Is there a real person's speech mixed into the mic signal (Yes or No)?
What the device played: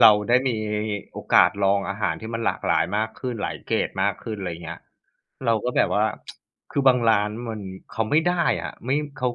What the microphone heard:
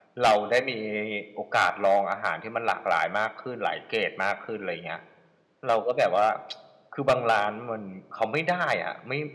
No